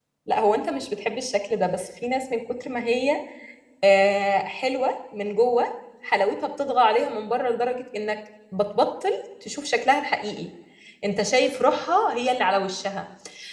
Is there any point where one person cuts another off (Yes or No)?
No